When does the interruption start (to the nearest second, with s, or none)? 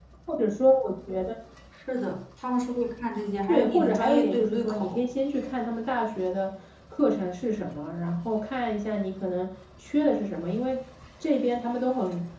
3 s